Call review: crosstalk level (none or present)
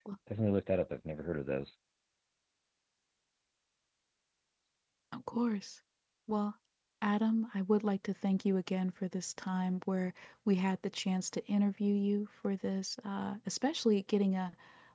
none